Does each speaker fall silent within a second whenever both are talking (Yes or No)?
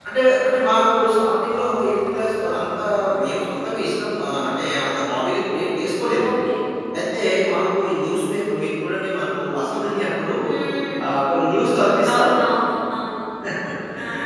Yes